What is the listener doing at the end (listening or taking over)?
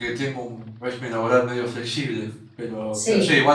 listening